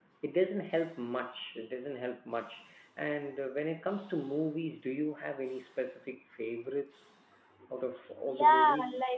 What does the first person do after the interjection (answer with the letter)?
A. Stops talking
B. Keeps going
A